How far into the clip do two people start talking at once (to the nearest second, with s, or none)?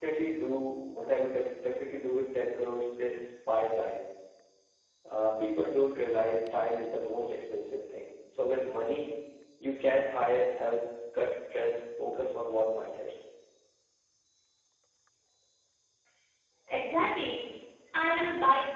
none